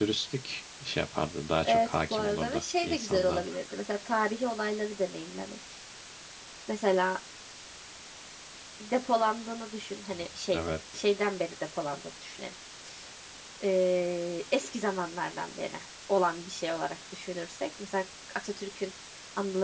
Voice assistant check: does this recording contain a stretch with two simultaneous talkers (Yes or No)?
Yes